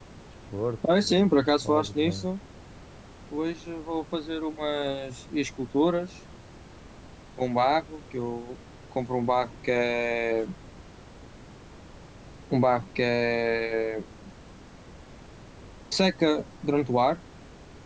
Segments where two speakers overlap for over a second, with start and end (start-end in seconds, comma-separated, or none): 1.0-2.3